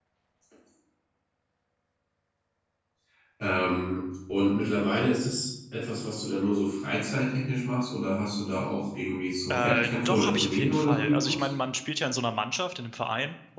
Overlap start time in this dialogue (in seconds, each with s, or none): 9.5 s